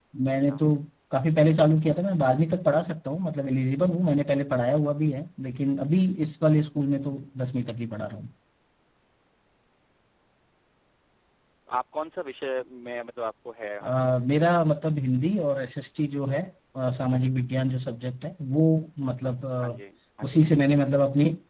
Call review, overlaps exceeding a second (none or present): none